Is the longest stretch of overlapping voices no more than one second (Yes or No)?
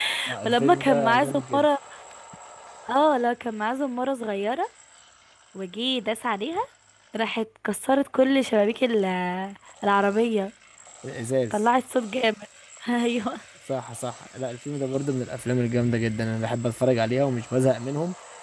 No